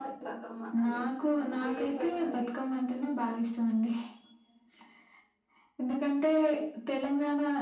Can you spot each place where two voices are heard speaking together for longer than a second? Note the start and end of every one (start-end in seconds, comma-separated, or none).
0.8-2.7